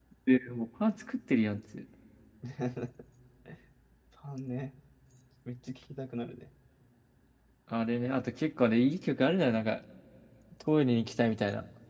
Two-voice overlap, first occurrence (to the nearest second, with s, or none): none